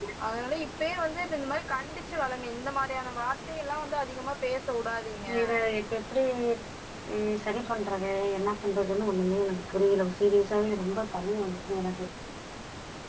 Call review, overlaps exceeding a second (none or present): none